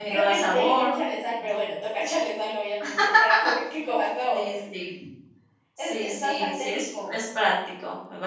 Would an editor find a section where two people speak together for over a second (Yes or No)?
Yes